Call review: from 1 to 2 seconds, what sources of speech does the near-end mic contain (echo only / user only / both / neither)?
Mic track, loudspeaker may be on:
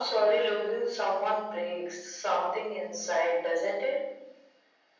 echo only